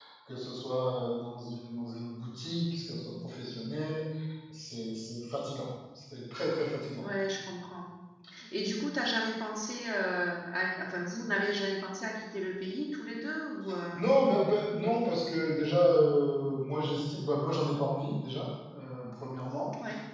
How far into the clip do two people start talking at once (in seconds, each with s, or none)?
none